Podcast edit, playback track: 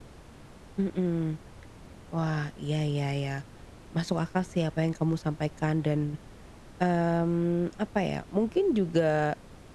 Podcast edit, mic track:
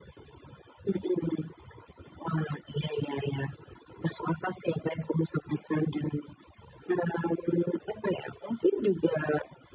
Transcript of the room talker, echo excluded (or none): none